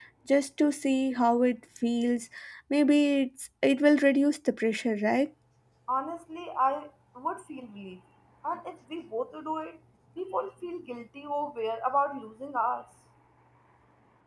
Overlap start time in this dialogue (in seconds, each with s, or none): none